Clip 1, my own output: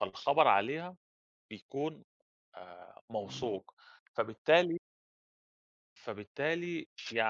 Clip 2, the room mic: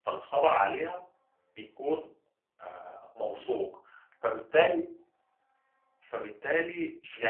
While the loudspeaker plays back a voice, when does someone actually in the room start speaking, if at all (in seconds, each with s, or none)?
none